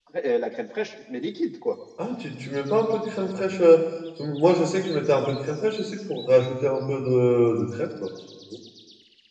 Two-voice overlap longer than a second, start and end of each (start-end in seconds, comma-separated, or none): none